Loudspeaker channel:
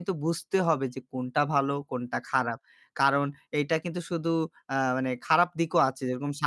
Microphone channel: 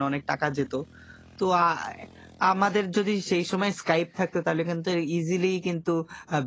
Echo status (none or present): none